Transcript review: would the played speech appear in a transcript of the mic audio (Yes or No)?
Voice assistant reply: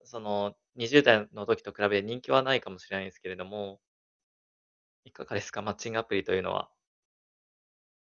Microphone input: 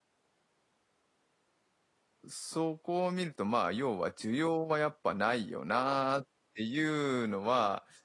No